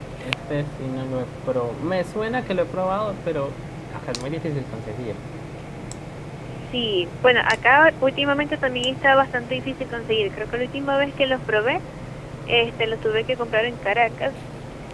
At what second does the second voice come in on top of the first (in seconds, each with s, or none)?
none